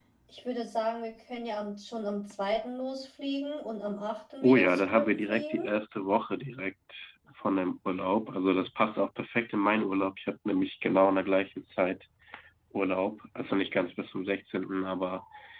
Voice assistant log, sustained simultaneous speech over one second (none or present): present